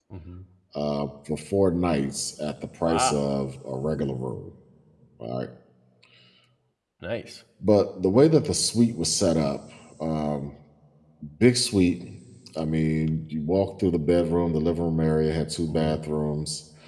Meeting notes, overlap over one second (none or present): none